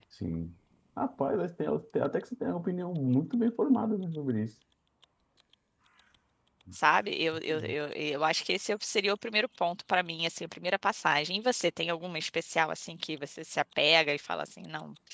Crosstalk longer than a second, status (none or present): none